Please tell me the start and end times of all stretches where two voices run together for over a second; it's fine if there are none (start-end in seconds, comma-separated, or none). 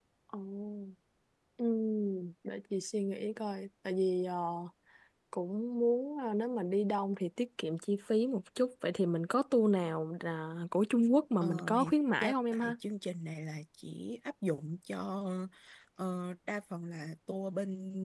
11.4-12.8